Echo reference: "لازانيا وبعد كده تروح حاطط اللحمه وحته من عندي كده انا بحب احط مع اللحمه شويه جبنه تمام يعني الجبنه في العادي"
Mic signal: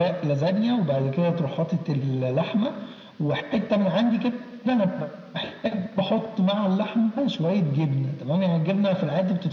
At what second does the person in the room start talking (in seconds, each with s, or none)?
none